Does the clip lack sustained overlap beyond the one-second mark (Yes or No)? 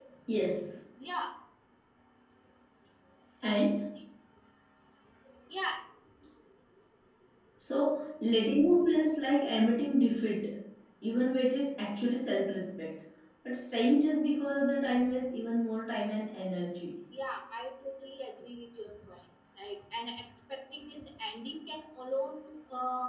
Yes